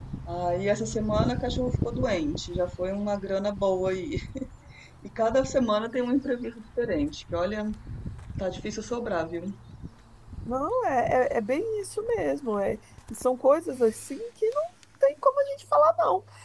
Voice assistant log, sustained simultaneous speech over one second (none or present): none